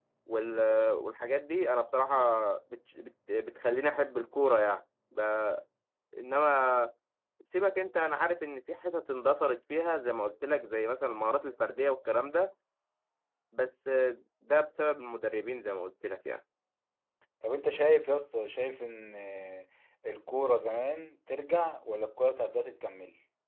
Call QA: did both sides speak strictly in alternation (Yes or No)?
Yes